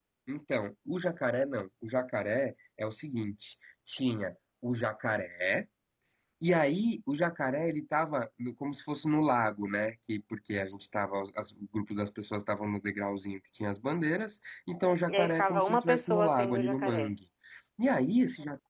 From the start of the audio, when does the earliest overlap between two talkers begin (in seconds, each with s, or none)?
15.1 s